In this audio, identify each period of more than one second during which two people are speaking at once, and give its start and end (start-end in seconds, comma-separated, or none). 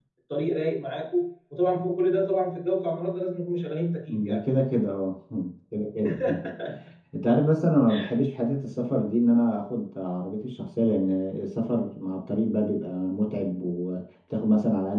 none